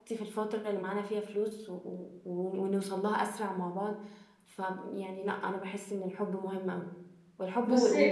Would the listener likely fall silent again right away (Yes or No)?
Yes